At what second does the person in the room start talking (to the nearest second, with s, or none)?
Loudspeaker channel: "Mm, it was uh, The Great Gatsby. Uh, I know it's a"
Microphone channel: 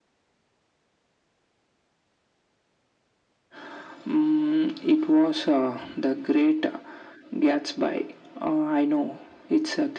none